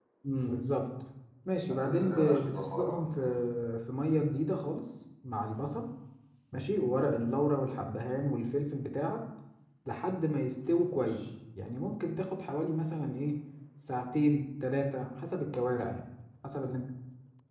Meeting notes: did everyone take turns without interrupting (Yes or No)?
No